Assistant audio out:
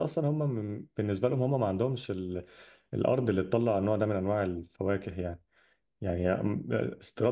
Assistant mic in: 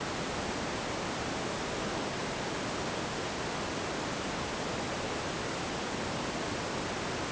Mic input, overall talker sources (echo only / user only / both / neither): neither